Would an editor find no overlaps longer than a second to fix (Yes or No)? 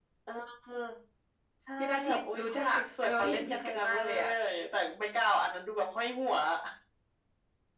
No